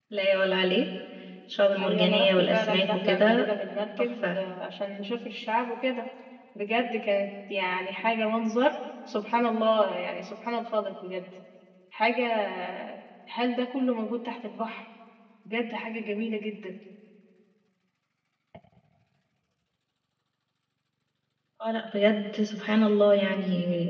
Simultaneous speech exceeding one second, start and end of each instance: 1.8-3.5

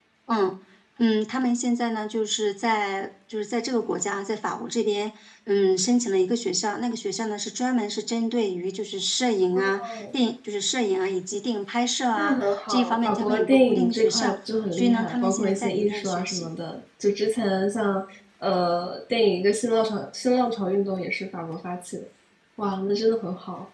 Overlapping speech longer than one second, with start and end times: 12.1-14.3, 14.7-16.5

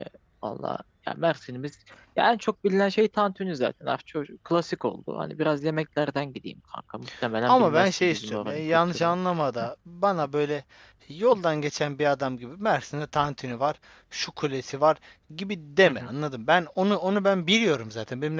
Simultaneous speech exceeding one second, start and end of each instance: 7.5-9.1

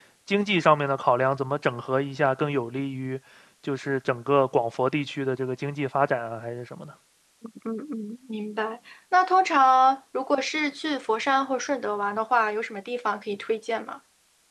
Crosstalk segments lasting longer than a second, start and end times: none

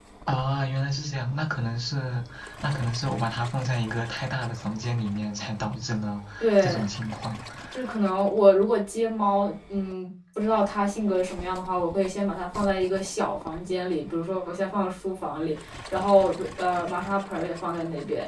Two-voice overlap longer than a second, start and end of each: none

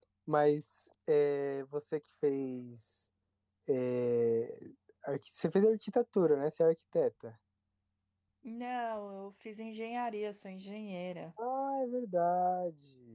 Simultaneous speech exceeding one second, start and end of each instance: none

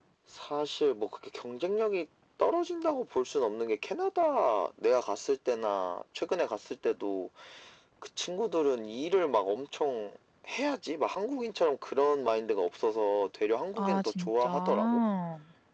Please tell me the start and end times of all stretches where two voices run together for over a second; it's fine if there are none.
13.8-15.0

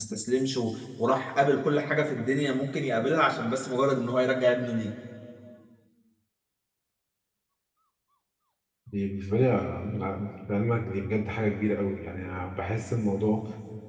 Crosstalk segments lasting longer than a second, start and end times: none

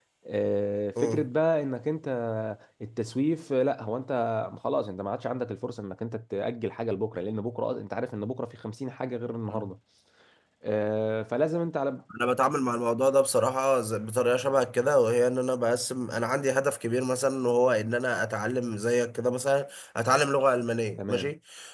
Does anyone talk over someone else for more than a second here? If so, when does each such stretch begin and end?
none

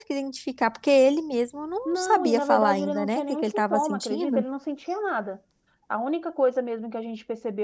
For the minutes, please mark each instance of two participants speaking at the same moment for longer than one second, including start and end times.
1.9-4.4

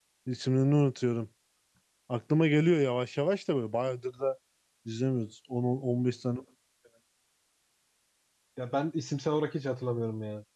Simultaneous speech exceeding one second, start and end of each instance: none

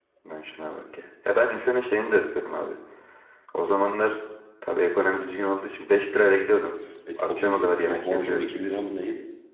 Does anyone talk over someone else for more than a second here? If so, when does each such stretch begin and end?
7.2-8.5

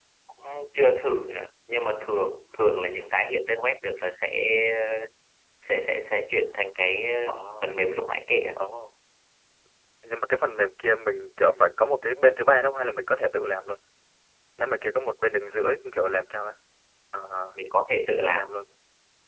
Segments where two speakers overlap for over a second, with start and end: none

